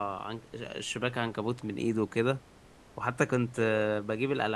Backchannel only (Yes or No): Yes